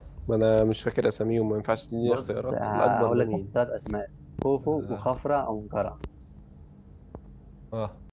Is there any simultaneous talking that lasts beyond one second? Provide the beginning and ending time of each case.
2.0-3.4

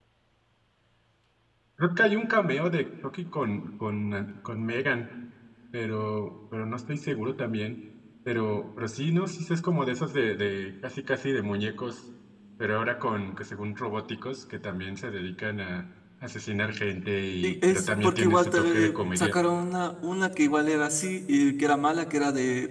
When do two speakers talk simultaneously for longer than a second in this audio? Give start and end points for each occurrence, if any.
17.4-19.3

